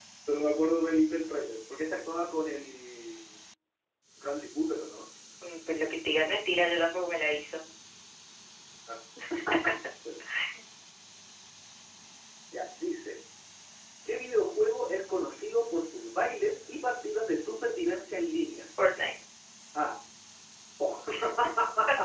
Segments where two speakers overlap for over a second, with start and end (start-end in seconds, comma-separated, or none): none